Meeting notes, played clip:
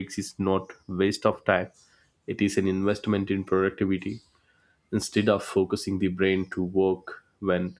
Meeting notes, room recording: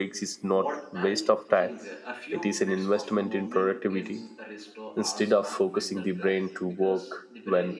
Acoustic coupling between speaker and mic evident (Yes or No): Yes